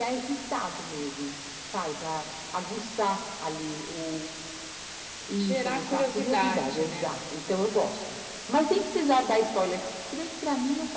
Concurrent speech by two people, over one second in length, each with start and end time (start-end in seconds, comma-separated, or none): 5.3-7.1